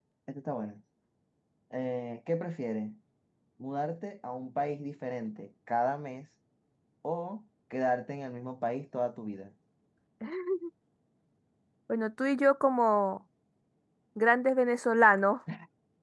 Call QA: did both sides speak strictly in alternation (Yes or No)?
Yes